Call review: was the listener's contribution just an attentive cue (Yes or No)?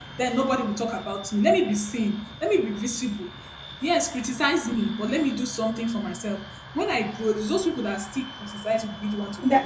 No